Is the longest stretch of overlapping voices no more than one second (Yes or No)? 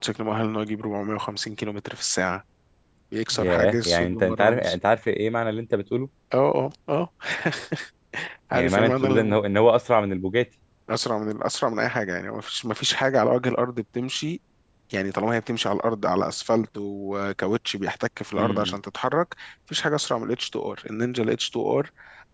No